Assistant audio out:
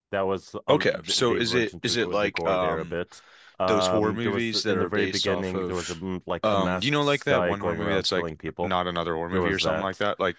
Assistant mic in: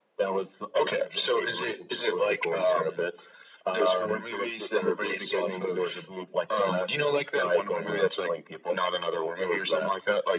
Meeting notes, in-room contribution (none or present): none